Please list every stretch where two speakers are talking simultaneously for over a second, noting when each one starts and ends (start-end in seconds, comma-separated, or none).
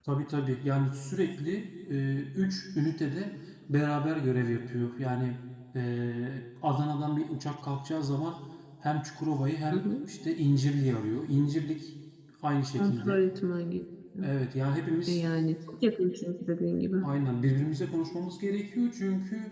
none